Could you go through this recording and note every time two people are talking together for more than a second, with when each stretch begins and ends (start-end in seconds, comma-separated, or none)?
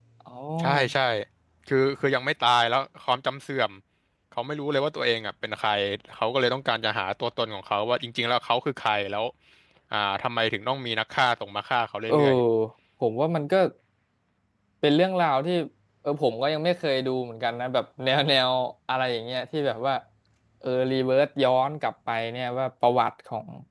none